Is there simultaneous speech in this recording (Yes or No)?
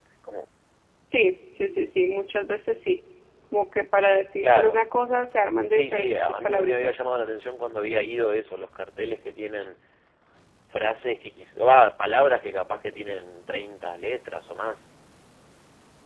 Yes